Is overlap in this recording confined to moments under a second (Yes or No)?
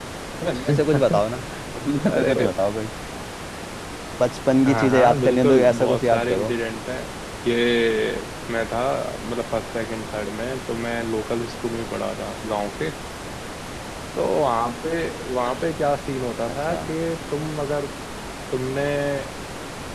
No